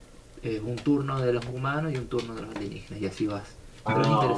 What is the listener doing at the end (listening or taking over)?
taking over